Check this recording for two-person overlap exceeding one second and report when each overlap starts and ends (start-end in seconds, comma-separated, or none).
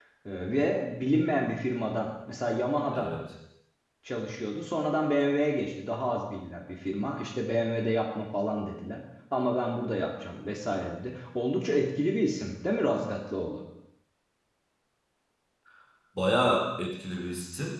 none